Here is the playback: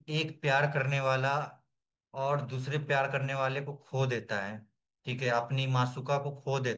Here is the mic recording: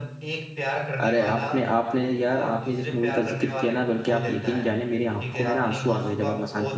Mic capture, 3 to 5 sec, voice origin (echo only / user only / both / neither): both